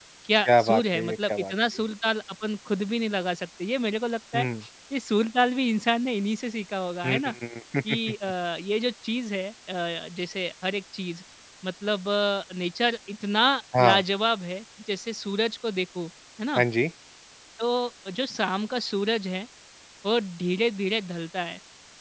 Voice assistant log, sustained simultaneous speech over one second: present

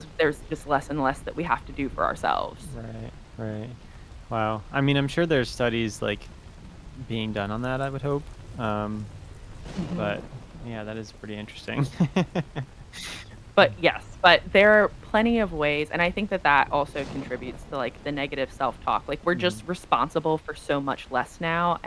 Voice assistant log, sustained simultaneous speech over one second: none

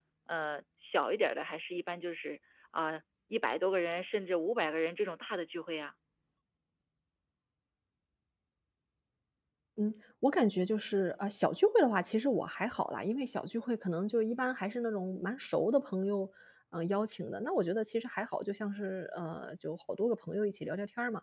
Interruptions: none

